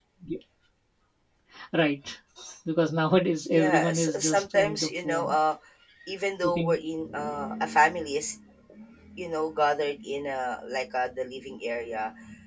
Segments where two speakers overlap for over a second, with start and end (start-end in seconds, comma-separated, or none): 3.5-5.4